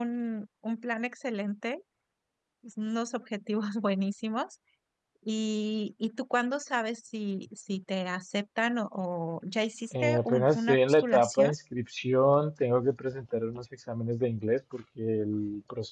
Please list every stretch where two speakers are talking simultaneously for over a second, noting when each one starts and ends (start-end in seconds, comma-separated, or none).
9.9-11.6